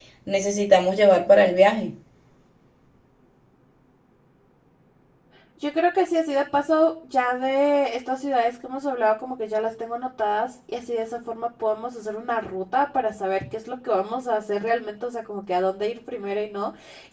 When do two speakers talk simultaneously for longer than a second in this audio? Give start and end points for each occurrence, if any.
none

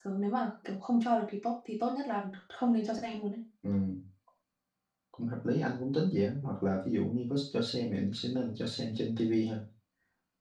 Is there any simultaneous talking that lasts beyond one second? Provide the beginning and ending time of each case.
none

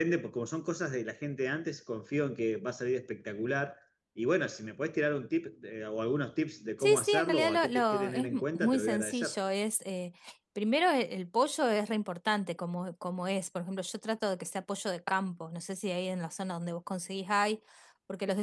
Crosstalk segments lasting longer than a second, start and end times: 6.8-9.4

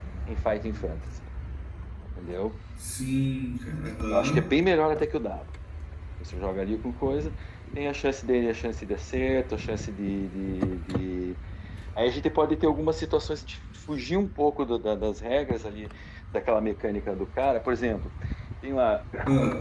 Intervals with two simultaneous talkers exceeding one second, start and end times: none

